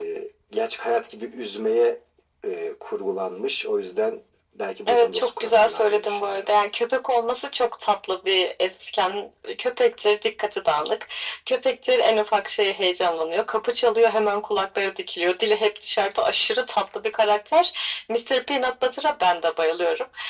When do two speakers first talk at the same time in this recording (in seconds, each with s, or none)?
4.9 s